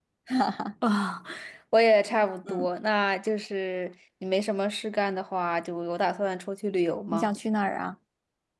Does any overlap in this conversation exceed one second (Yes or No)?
No